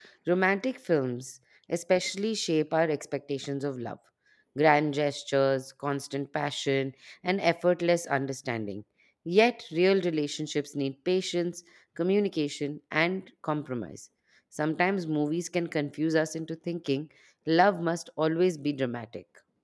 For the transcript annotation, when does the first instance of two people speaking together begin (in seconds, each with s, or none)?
none